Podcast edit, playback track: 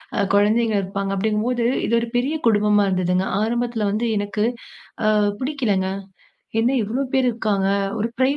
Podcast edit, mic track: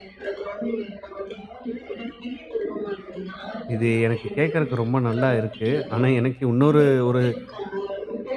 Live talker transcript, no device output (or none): இது எனக்கு கேட்கறக்கு ரொம்ப நல்லா இருக்கு. ஆனா, எனக்கு இன்னொரு ஒரு